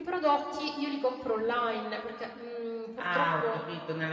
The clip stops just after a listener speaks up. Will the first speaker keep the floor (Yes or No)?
No